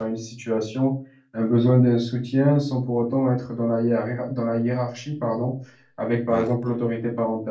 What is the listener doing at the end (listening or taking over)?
listening